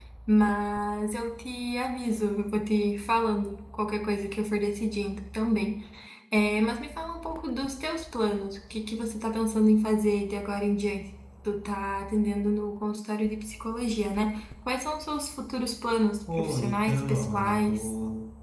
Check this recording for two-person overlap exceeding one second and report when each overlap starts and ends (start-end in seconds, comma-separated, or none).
16.4-17.9